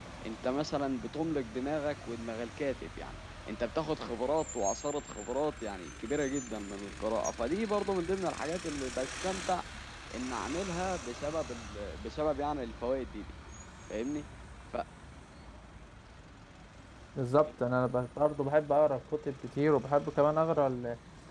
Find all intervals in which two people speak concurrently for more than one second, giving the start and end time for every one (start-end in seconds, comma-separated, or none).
none